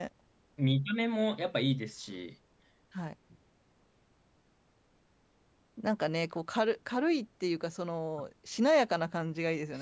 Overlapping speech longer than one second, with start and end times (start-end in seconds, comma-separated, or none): none